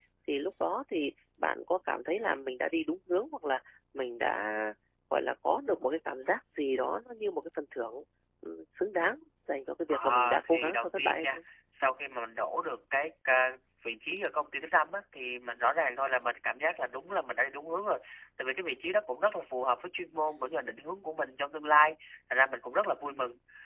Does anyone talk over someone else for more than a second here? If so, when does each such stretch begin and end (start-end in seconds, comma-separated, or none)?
9.9-11.4